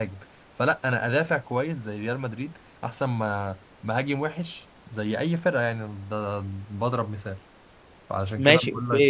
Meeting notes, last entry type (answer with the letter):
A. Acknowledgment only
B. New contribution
B